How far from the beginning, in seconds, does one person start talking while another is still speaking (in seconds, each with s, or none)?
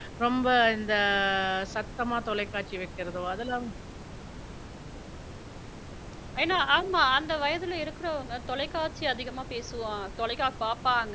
none